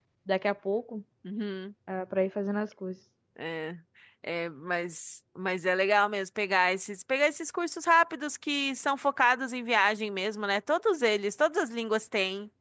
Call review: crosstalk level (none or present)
none